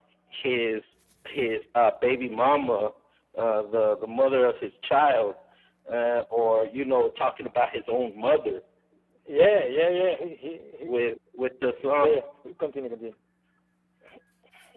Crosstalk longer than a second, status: none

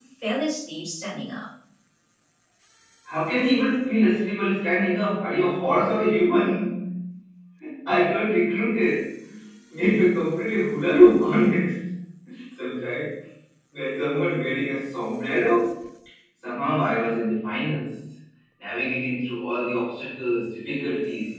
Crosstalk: none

